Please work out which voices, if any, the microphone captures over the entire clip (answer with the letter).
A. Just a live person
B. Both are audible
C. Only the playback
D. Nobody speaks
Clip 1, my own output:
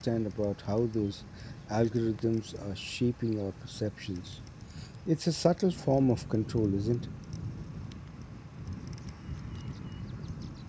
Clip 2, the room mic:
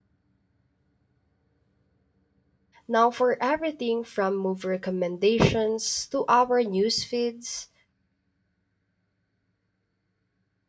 A